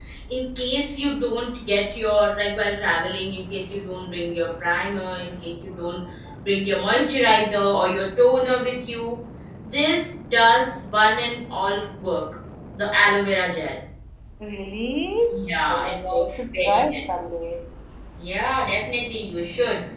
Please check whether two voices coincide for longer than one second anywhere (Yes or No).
Yes